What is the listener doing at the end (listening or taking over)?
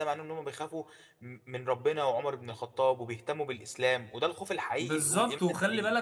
taking over